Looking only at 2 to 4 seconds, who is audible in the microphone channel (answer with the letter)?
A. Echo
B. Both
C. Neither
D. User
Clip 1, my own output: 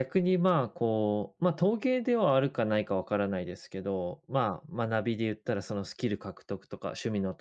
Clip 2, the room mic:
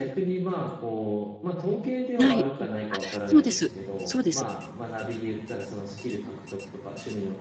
B